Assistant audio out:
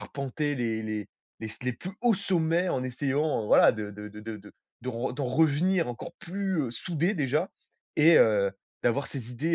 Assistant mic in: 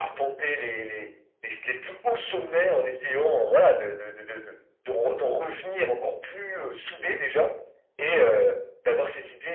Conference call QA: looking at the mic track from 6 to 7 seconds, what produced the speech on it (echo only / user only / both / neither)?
echo only